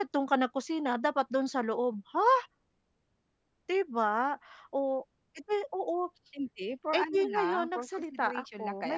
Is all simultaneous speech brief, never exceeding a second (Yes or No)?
No